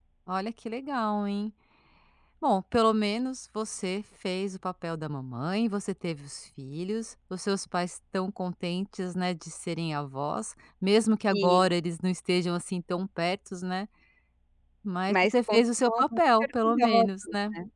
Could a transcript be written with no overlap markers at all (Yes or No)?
No